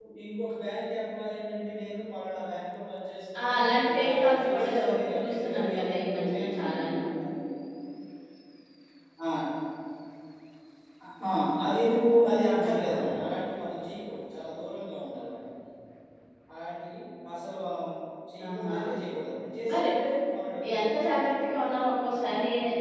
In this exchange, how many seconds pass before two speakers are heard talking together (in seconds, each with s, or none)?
3.4 s